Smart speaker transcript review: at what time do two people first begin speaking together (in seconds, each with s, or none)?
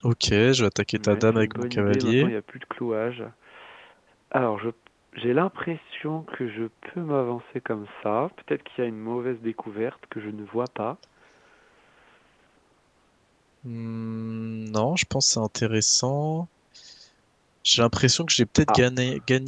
0.9 s